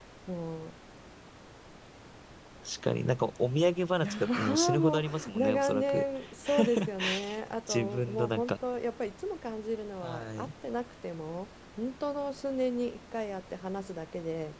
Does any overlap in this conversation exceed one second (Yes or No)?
Yes